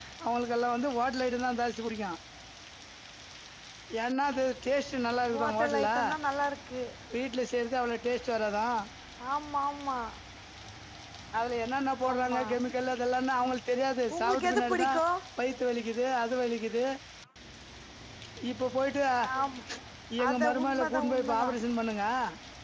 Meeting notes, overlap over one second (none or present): present